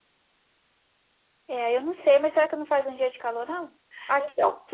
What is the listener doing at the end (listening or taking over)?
listening